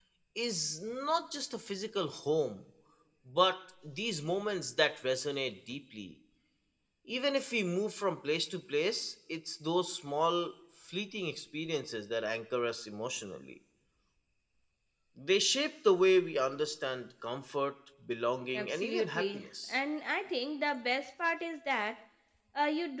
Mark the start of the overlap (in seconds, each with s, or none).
18.5 s